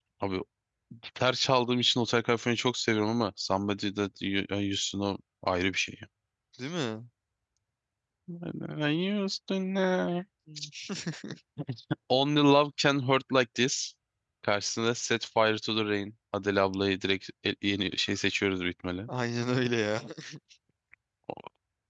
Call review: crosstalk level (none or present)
none